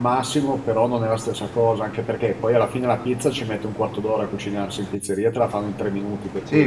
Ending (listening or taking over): taking over